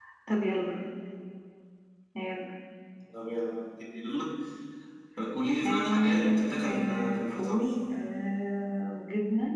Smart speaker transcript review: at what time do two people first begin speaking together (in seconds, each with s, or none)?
5.7 s